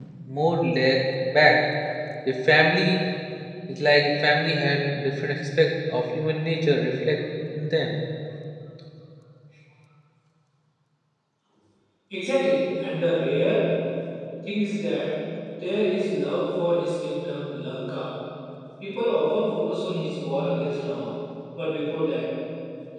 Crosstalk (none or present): none